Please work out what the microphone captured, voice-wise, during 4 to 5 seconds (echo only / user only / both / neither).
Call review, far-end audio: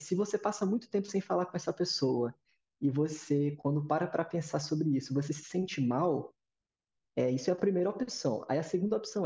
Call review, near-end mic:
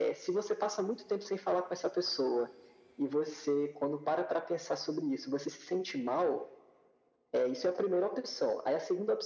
echo only